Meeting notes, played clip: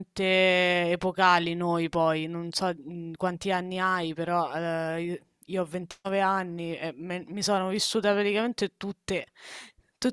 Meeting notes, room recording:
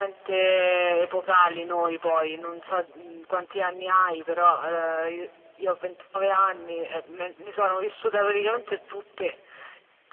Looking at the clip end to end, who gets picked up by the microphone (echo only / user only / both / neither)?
echo only